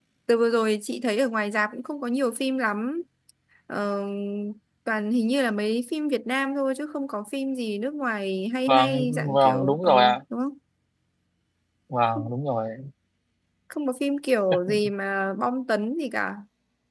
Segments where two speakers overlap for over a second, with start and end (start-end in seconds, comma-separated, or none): 8.7-9.9